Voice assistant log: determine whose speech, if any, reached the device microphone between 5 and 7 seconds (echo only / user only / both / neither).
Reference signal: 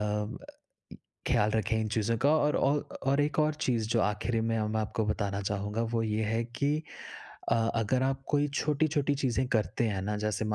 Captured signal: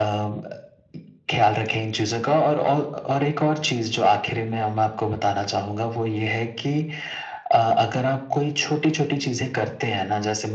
echo only